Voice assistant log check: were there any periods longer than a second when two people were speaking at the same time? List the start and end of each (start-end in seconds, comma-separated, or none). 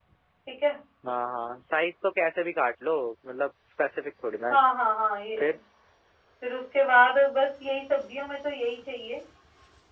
none